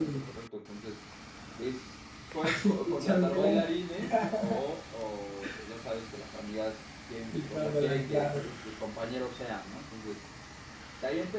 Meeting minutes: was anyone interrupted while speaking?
Yes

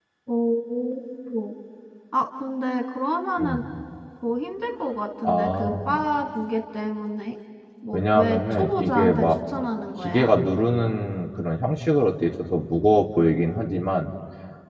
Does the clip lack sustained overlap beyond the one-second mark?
No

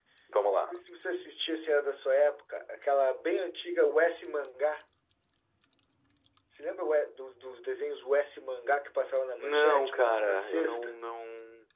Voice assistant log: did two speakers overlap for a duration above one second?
Yes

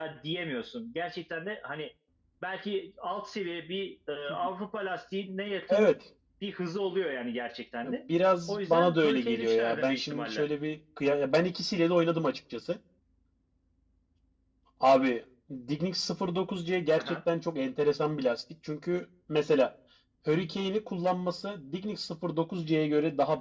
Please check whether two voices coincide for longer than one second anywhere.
Yes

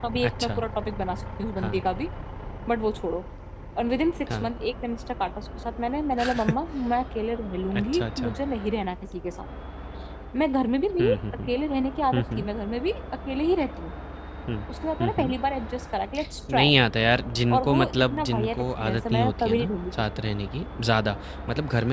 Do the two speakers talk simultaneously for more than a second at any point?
Yes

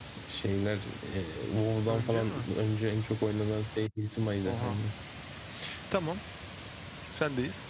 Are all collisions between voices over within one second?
Yes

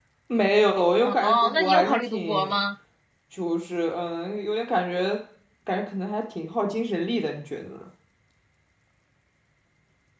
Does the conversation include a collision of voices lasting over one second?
Yes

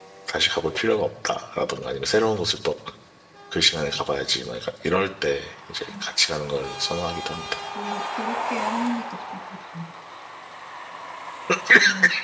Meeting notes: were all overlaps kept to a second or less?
Yes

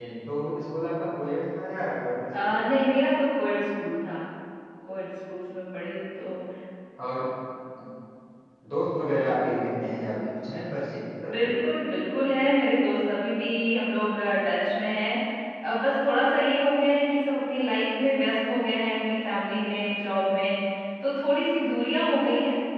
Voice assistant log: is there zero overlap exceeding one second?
Yes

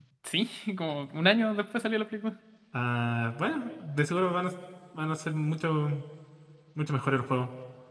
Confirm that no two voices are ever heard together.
Yes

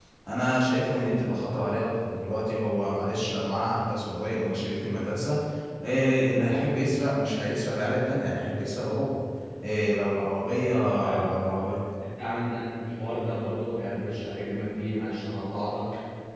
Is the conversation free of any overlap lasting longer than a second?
Yes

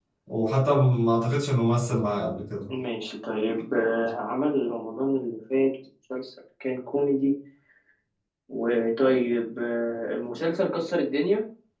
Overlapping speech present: No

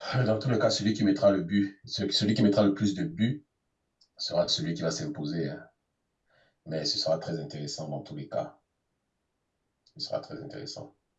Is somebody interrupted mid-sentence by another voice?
No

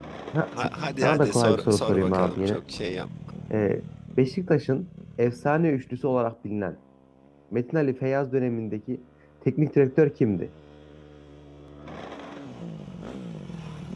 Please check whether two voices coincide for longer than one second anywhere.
Yes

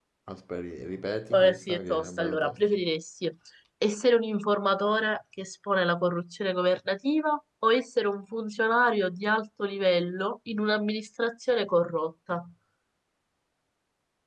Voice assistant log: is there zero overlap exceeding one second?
No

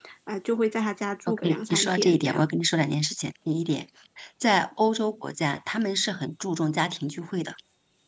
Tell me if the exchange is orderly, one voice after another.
No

